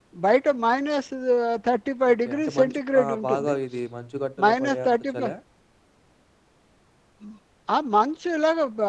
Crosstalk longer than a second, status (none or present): present